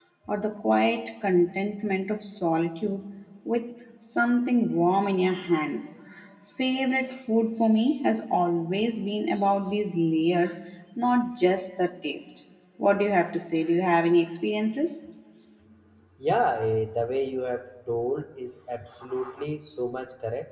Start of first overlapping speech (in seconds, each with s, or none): none